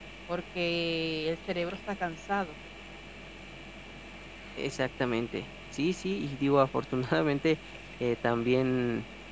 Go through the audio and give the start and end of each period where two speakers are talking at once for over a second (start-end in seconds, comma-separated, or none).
none